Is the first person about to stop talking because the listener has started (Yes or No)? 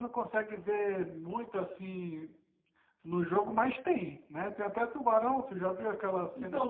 Yes